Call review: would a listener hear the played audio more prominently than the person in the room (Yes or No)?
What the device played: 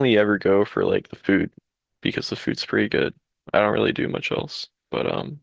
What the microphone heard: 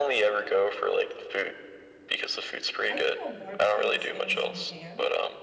Yes